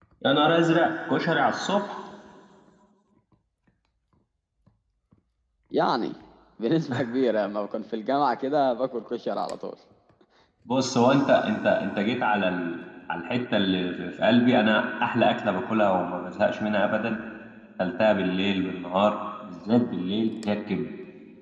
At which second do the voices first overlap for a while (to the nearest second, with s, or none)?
none